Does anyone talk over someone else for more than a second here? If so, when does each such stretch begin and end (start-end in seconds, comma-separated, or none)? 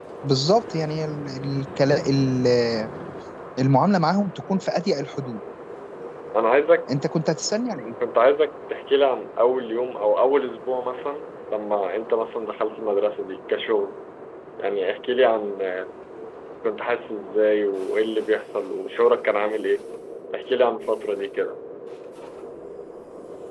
none